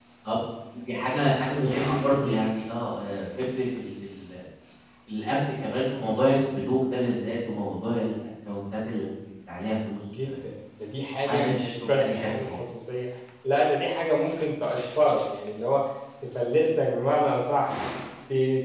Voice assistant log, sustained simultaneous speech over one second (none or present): present